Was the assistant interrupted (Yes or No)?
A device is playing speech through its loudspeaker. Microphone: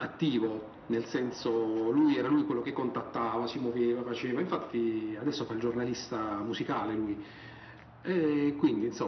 No